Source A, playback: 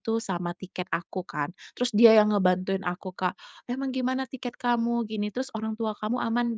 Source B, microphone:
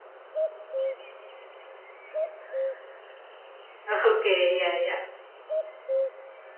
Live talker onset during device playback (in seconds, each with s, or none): 3.9 s